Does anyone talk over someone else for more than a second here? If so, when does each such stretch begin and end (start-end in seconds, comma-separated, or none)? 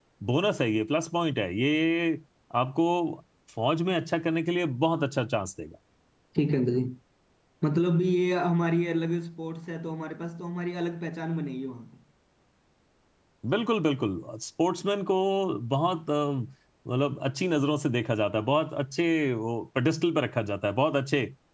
none